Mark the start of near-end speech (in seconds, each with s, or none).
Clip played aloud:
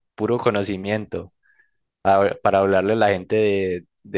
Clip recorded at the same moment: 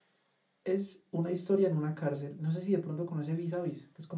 0.6 s